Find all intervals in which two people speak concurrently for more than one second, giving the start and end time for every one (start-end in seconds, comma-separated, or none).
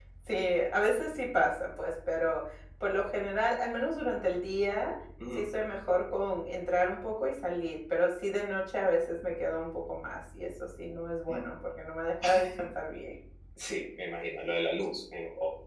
none